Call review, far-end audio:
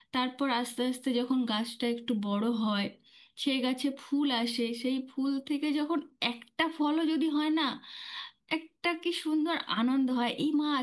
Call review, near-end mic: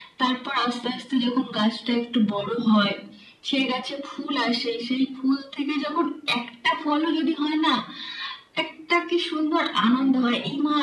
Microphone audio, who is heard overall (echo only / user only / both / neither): echo only